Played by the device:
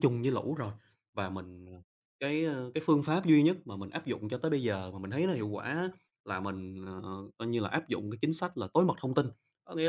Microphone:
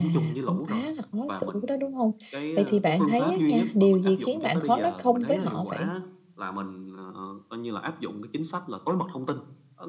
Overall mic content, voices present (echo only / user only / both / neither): both